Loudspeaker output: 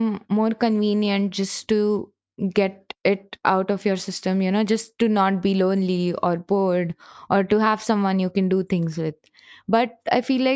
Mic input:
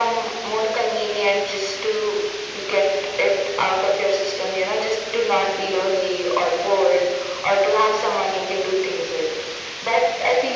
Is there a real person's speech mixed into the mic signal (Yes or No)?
No